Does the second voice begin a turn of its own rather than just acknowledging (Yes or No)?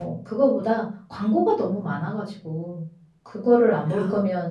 No